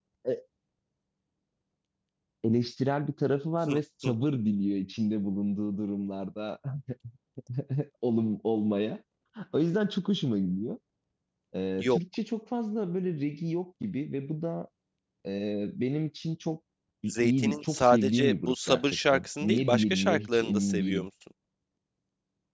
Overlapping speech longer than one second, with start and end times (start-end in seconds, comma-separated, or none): 17.2-21.1